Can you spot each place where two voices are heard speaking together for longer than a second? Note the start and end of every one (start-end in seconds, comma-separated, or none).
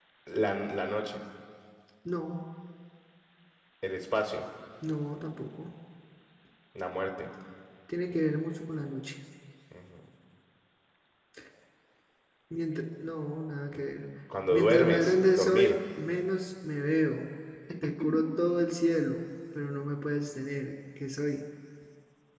14.5-15.8